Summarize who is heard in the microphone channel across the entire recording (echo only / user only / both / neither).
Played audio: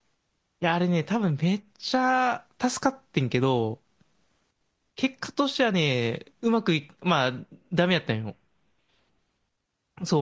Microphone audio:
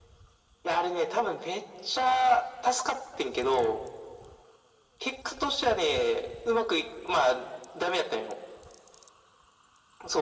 echo only